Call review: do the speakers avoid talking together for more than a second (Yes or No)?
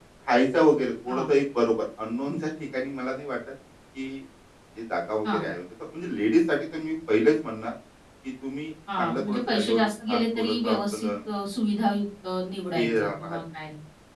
No